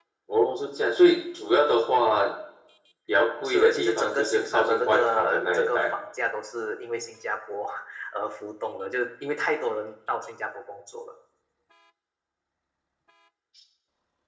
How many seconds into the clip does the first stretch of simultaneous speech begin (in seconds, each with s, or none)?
3.4 s